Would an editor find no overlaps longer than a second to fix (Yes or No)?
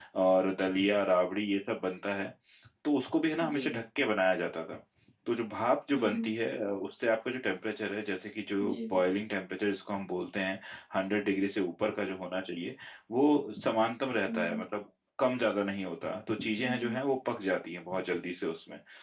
Yes